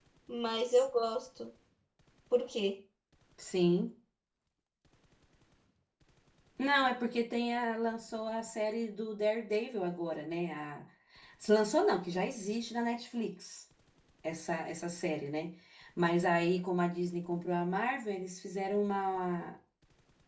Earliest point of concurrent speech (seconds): none

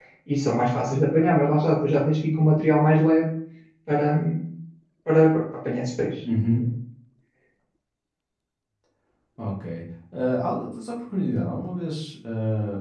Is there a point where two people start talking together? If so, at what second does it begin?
none

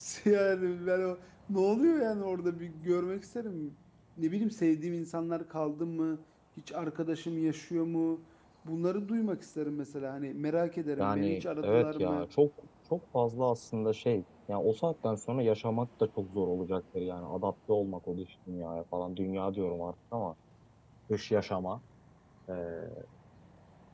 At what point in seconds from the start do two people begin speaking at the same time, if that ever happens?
11.0 s

